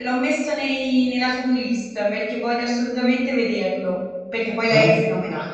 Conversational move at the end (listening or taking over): listening